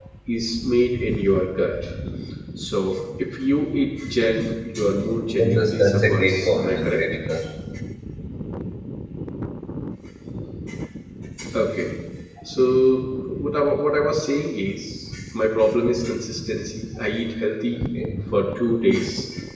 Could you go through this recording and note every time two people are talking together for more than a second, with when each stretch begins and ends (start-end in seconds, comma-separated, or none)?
5.4-7.0